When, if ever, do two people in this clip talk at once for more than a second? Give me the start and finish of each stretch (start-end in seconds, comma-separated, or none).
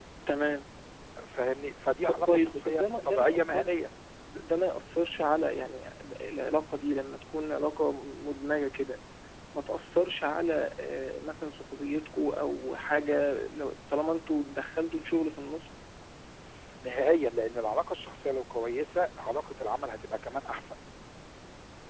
2.3-3.8